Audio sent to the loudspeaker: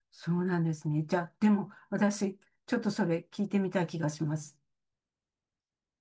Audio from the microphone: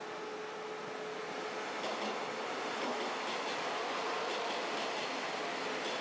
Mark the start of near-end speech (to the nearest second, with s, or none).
none